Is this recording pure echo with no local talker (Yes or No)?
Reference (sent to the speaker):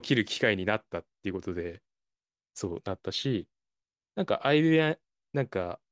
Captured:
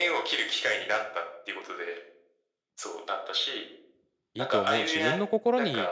No